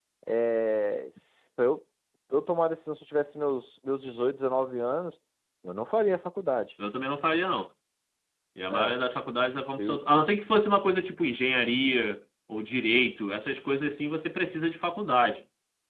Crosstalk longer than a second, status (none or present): none